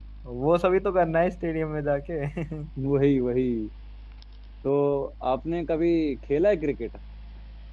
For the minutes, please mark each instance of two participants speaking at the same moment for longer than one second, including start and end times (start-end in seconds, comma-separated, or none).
none